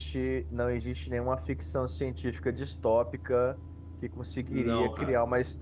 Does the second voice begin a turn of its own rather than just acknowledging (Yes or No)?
No